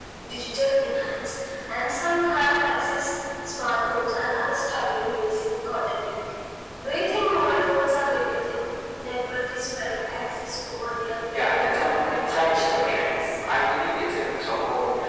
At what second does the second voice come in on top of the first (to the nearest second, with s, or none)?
11 s